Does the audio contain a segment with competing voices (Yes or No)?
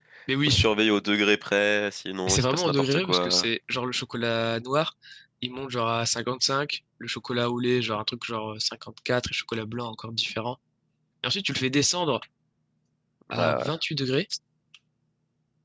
Yes